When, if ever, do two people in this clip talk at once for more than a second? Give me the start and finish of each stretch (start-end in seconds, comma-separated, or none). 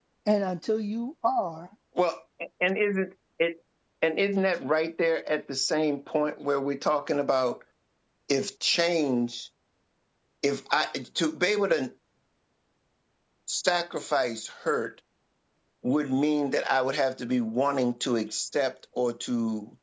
none